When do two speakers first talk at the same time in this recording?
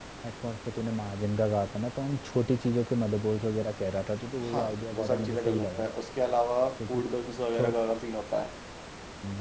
4 s

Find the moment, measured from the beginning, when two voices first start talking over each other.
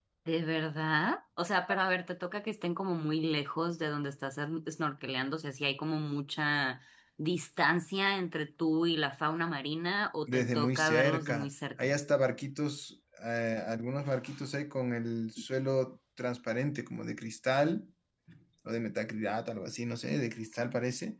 10 s

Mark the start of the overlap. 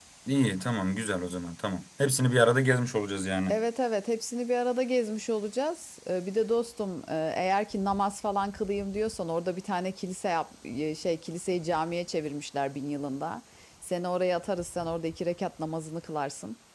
none

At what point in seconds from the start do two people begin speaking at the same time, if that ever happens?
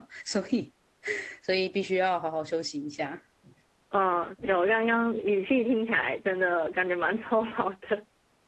none

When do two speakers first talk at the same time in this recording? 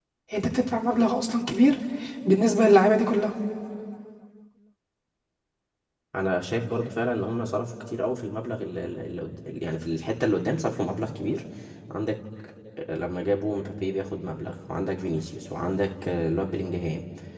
none

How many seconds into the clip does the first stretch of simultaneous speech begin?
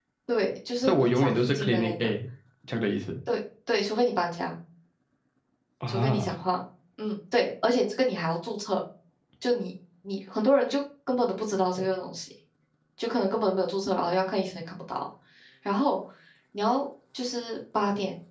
1 s

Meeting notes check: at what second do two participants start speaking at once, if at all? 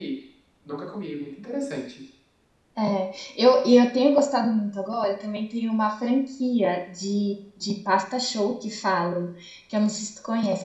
none

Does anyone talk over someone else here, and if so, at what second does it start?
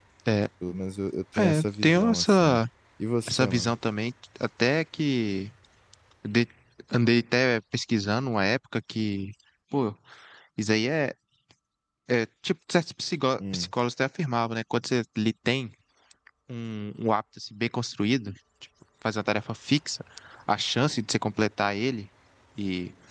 1 s

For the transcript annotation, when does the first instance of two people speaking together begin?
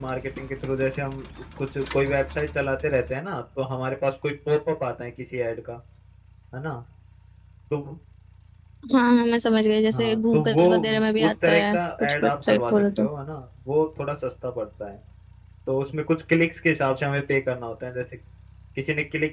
10 s

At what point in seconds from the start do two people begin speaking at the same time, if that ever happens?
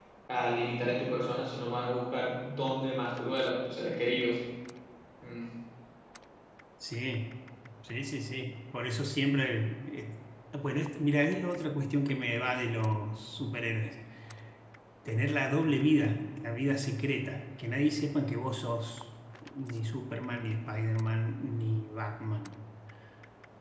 none

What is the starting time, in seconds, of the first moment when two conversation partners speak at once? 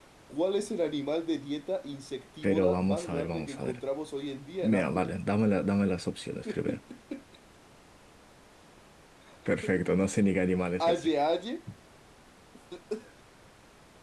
2 s

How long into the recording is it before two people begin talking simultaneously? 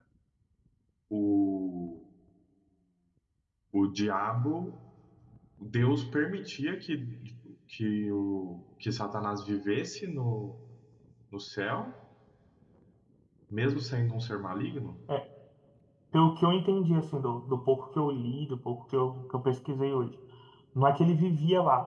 none

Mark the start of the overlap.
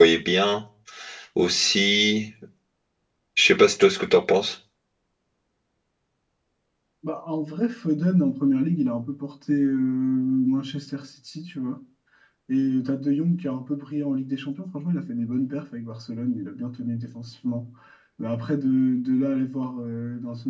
none

